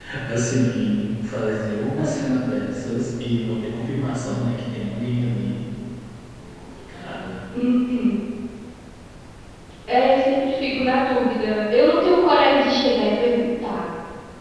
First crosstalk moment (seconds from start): none

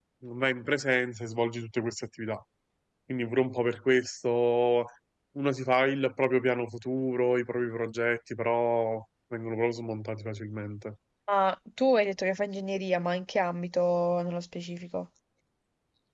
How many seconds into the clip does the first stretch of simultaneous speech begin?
none

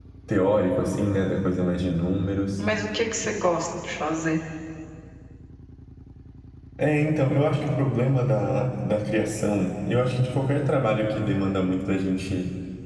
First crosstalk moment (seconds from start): none

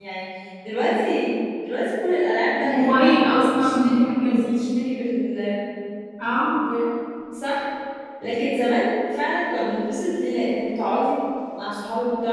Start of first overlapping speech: 2.6 s

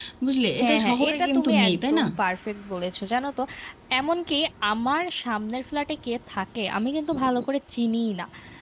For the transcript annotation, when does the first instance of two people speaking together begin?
0.6 s

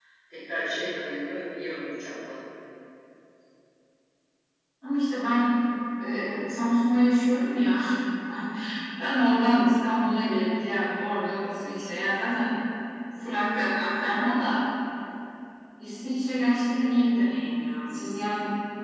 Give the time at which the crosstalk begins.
none

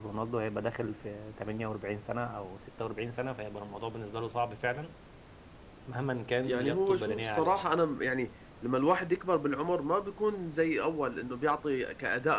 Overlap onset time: 6.5 s

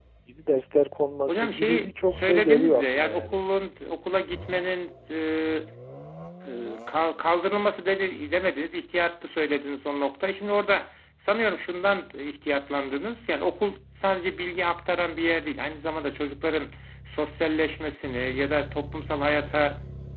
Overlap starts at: 1.3 s

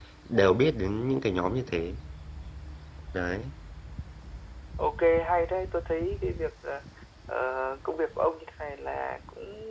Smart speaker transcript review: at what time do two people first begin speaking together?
none

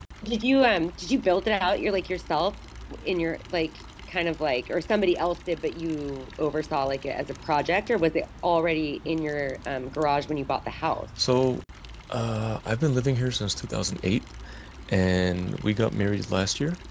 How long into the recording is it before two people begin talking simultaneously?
none

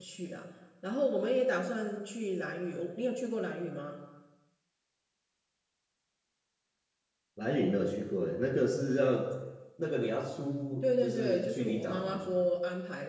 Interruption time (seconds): 10.8 s

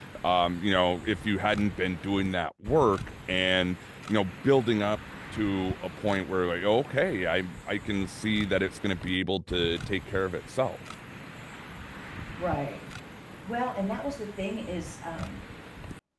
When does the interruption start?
none

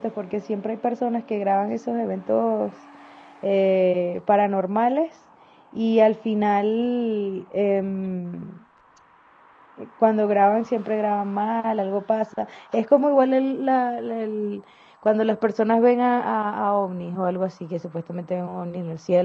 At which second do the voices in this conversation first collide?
none

